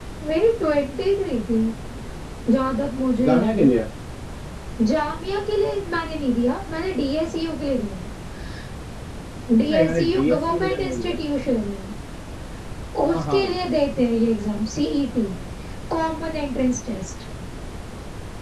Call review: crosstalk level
present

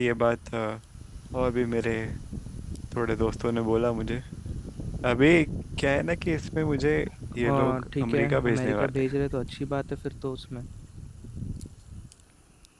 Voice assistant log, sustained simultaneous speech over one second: present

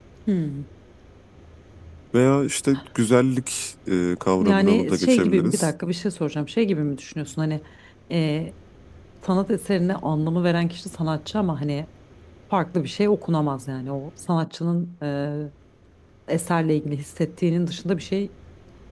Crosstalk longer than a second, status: present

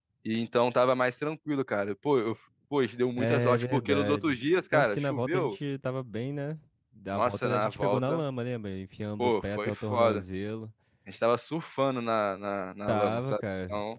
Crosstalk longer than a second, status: present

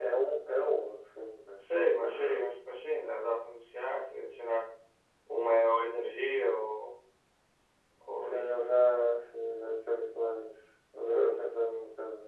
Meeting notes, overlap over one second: none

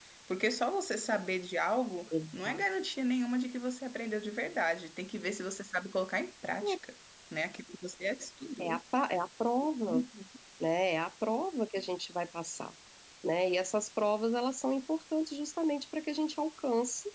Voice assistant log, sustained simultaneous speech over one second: none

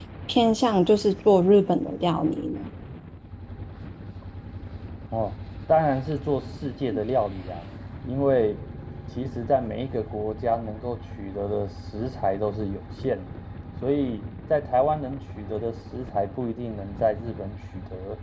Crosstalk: none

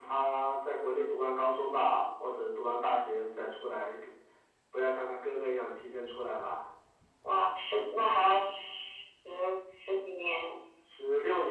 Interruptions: none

